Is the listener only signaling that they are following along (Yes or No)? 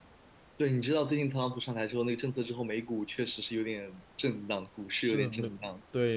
No